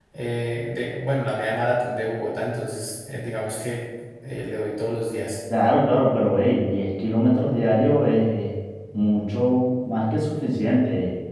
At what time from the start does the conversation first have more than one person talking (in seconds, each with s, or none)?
none